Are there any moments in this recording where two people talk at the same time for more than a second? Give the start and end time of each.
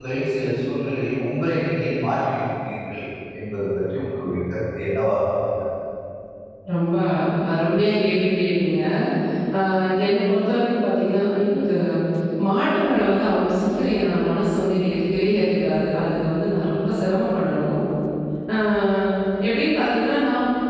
none

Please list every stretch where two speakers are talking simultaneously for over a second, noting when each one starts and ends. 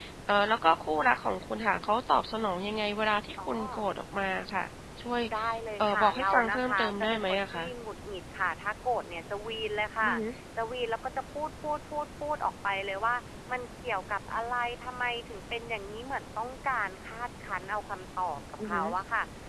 5.8-7.7

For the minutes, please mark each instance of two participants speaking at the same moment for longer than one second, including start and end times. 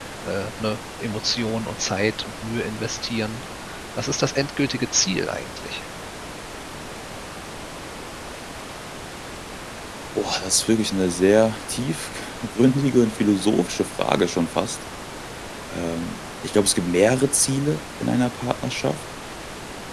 none

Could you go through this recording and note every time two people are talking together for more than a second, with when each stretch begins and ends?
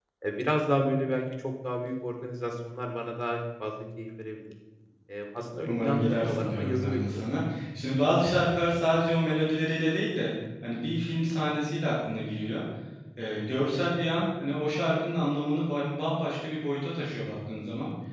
5.7-7.3

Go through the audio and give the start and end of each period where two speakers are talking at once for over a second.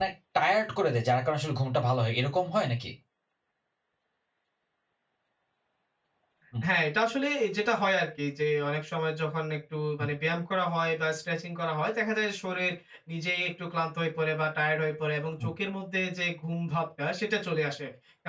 none

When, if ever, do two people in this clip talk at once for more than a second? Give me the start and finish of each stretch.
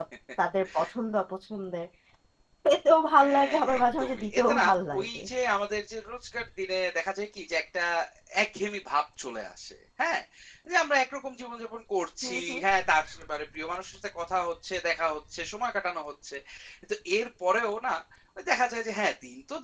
3.2-5.2

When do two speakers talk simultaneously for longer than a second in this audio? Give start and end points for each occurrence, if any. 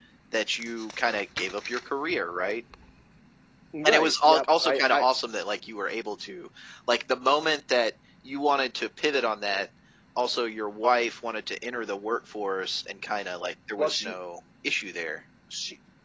3.8-5.0

